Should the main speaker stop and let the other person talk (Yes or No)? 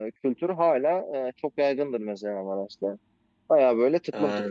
No